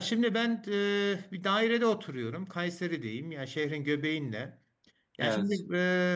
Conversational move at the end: listening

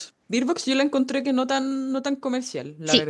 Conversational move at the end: taking over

